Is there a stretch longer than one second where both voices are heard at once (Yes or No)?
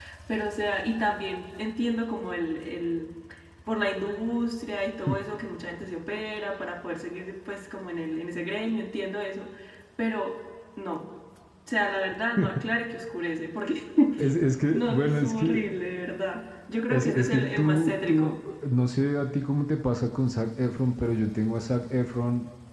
Yes